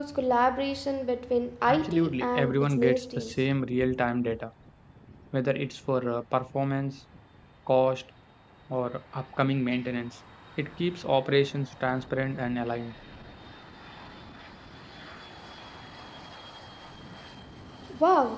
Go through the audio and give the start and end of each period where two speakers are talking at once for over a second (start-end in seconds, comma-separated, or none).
1.7-3.5